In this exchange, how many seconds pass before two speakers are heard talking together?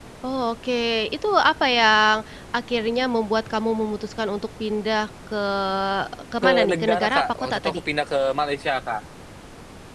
6.4 s

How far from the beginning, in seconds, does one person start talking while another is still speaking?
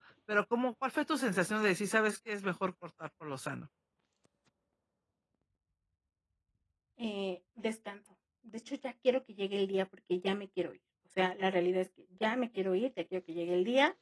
none

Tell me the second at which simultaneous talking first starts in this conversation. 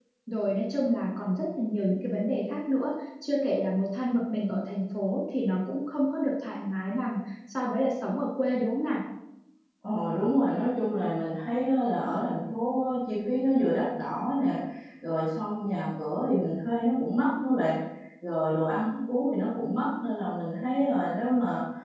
none

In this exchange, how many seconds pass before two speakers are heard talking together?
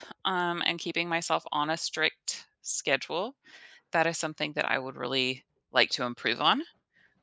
none

